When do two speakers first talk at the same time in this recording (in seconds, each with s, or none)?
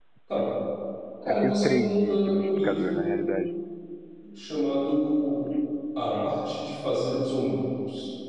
1.3 s